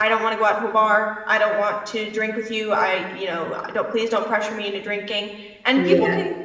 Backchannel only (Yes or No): Yes